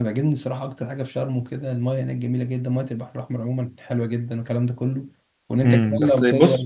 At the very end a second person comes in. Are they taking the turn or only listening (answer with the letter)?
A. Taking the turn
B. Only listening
A